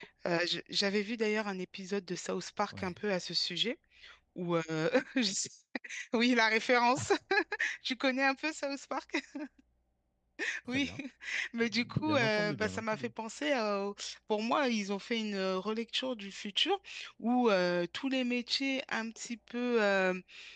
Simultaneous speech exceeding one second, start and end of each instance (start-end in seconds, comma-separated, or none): 11.6-13.1